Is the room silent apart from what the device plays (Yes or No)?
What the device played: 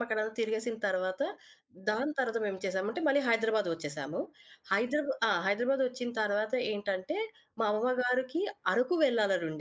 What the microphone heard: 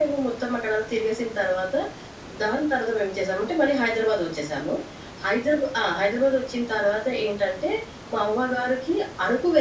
Yes